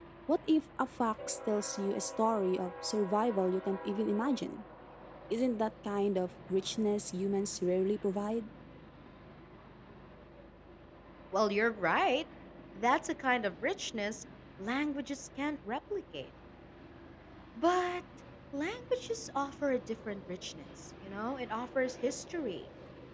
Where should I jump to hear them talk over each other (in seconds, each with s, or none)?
none